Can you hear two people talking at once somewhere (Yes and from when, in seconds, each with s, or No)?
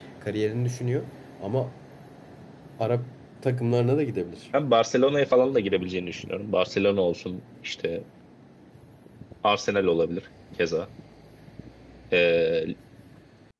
No